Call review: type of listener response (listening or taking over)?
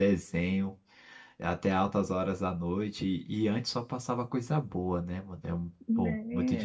taking over